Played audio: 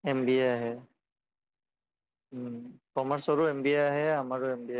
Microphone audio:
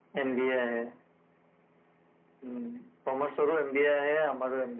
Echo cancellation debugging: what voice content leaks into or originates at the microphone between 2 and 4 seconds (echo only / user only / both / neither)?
echo only